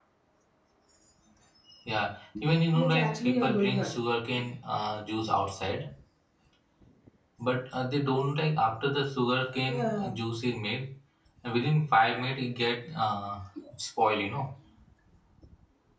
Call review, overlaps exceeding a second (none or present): present